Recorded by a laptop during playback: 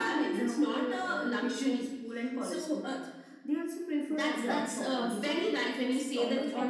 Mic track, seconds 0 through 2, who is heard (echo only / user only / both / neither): echo only